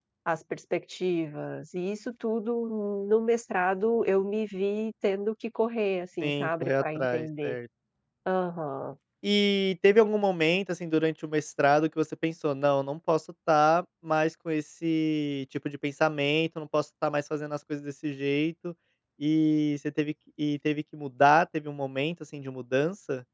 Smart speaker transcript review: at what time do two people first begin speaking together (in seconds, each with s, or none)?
6.2 s